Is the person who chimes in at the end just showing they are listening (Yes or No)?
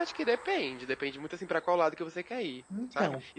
Yes